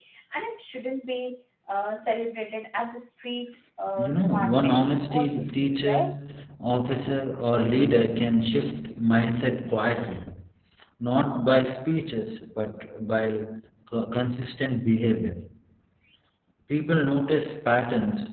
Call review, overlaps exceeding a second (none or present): present